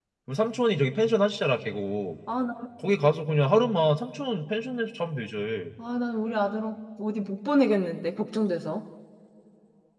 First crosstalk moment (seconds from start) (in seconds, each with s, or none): none